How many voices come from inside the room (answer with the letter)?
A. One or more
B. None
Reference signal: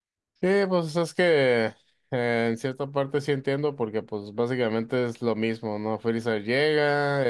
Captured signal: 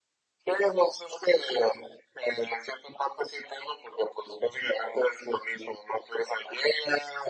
B